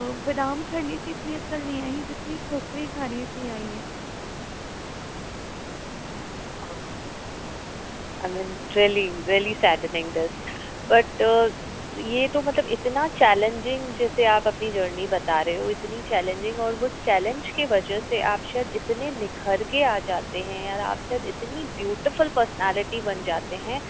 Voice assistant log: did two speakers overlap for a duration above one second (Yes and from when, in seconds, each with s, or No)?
No